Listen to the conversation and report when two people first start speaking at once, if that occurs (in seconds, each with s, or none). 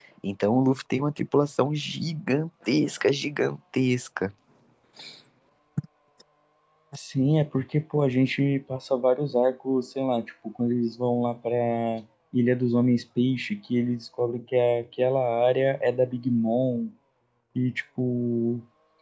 none